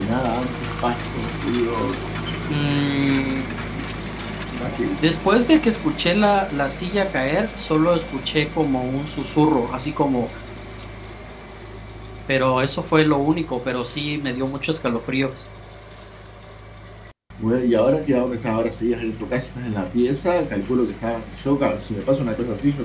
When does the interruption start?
none

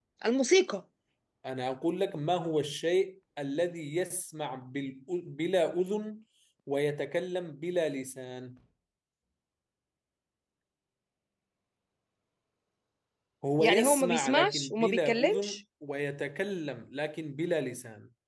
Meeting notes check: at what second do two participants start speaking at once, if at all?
13.6 s

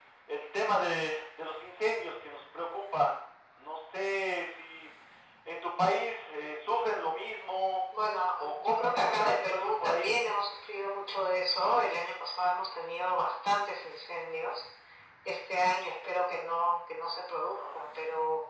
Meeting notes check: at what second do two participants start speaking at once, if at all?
8.4 s

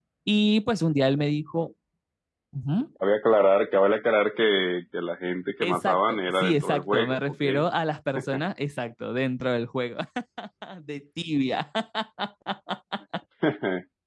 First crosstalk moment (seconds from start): 5.6 s

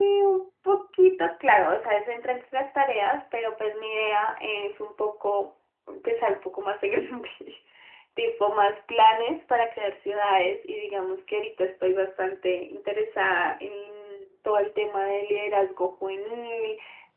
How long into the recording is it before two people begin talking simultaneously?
none

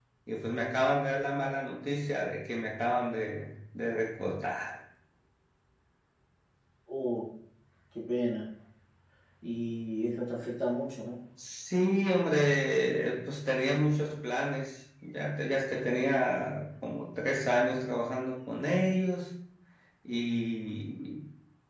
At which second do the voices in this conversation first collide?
none

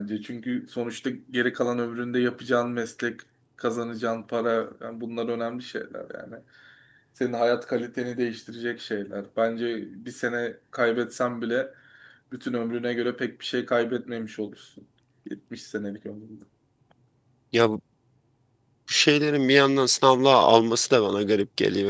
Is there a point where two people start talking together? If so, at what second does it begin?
none

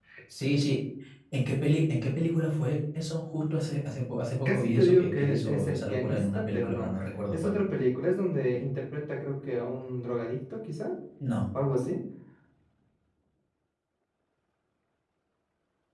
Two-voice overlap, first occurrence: 4.5 s

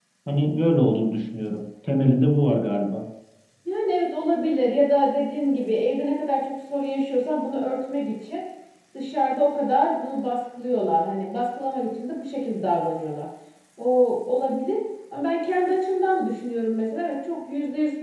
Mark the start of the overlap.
none

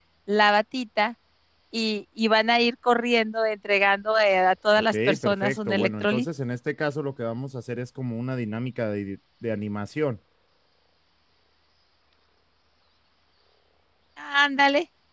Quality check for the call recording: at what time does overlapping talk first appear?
4.8 s

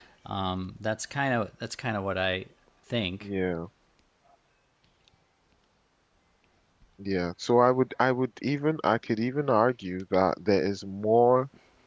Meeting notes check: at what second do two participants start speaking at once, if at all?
none

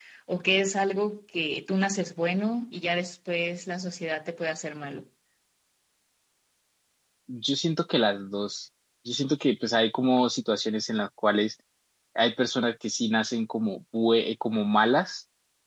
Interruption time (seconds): none

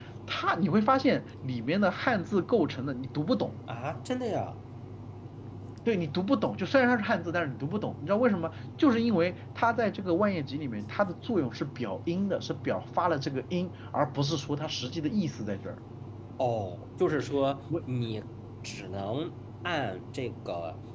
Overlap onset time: none

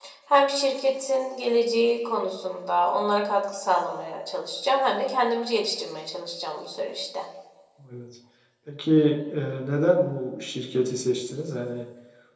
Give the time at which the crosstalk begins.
none

